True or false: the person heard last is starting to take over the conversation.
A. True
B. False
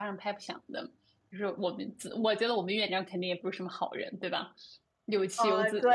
A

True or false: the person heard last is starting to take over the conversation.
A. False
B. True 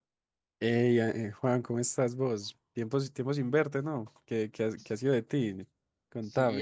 B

